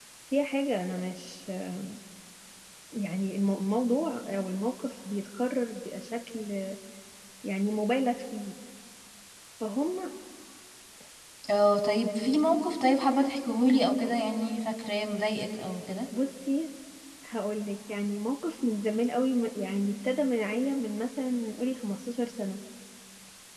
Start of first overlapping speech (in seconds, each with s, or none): none